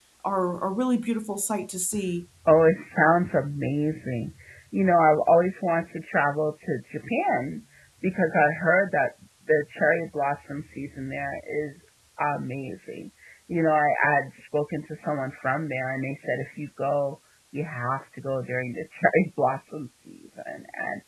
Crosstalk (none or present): none